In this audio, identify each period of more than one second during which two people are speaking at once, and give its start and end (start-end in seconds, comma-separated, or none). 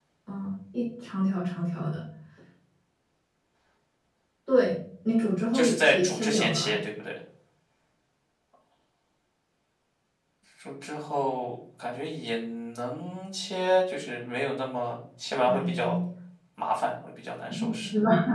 5.5-6.8